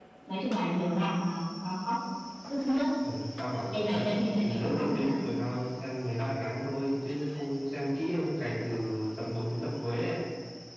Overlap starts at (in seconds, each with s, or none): 3.7 s